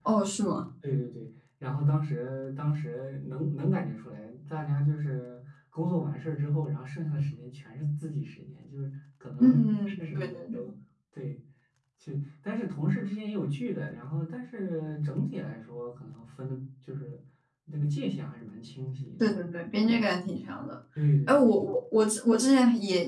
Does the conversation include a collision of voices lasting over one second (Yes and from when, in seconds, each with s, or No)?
Yes, from 9.4 s